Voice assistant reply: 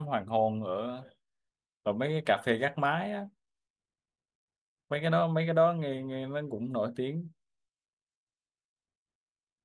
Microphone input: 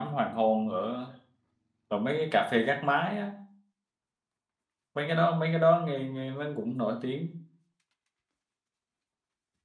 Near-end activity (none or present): none